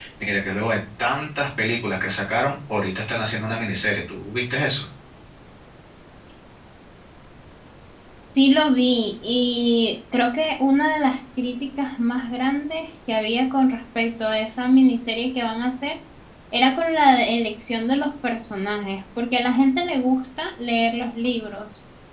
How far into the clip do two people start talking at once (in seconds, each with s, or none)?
none